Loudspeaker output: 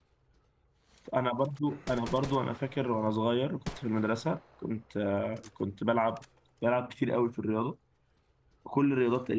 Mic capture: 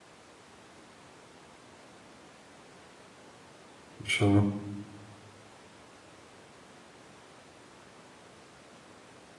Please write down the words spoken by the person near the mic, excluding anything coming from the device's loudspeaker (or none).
ان شاء الله